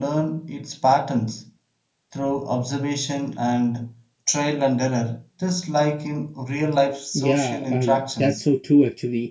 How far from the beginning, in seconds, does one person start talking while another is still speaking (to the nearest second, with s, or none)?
7 s